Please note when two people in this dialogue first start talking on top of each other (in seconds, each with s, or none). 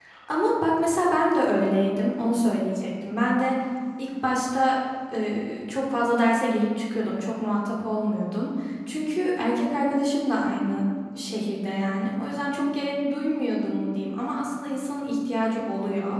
none